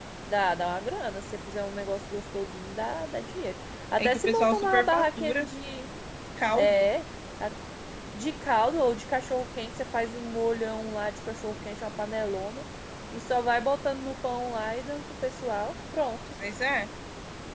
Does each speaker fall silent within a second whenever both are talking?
No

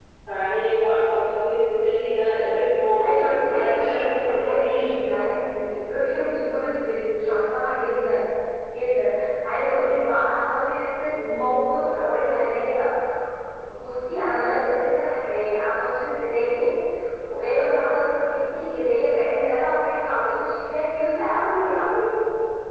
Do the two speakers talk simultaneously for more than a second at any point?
Yes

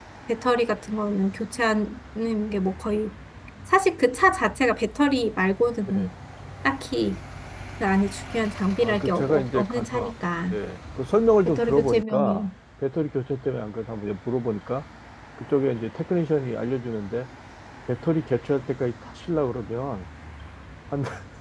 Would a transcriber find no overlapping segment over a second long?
No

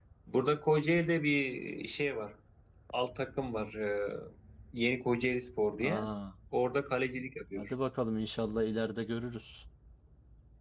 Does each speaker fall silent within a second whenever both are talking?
Yes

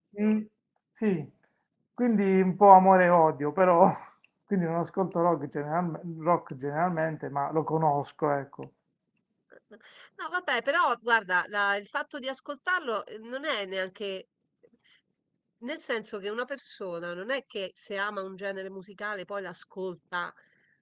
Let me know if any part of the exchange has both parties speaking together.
No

